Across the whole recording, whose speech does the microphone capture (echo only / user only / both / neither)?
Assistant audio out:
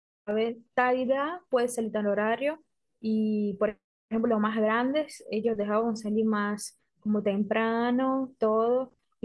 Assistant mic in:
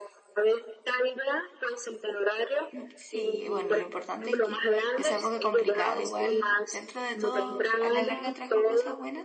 both